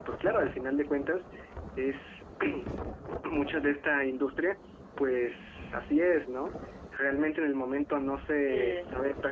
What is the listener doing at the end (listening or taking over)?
listening